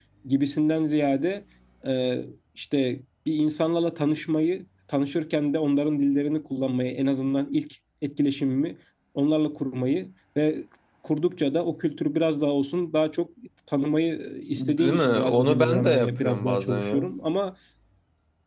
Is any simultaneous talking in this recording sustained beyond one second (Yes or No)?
Yes